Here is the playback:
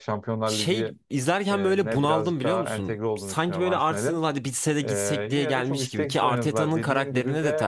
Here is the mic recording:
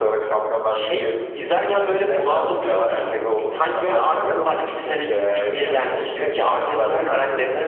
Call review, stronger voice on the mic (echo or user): echo